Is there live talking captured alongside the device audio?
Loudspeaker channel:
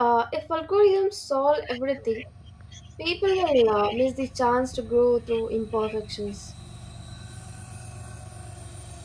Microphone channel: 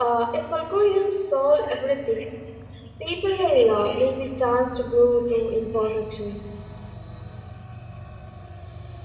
No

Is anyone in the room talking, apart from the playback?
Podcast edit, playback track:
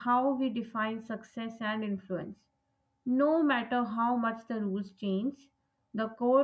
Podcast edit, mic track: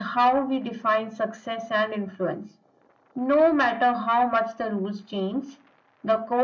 No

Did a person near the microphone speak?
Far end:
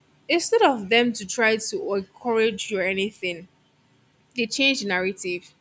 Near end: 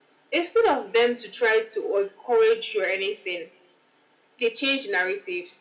No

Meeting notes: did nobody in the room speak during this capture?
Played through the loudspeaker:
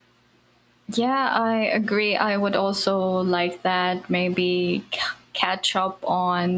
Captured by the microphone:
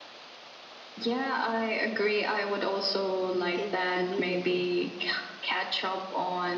No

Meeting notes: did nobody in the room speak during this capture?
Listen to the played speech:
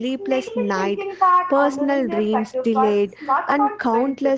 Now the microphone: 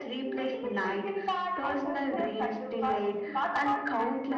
No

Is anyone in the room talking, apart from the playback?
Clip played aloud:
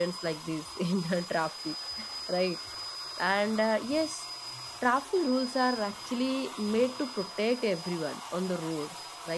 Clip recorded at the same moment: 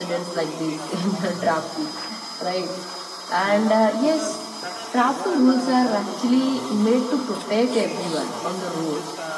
Yes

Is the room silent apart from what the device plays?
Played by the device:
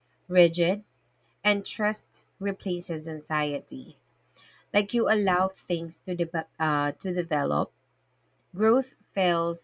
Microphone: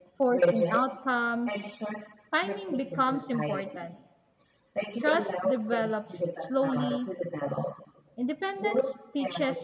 No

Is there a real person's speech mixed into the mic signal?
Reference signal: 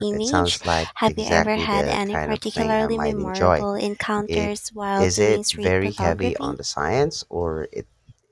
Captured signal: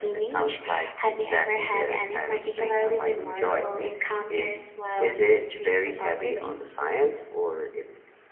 No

